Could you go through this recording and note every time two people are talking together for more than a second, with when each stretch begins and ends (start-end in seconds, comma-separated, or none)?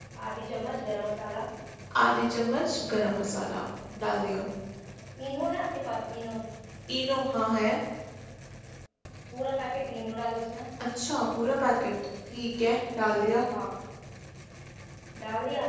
none